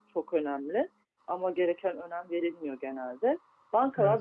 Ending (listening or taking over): listening